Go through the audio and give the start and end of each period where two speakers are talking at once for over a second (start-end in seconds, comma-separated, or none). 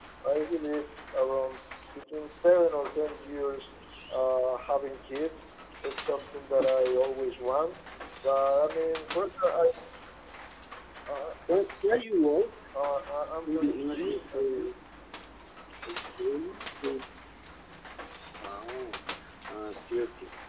13.4-14.7